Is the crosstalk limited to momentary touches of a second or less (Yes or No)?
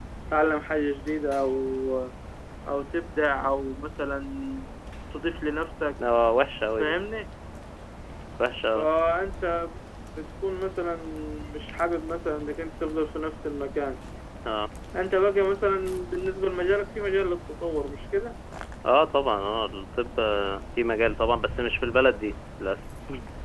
Yes